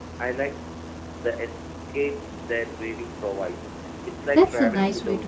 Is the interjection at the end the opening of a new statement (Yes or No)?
Yes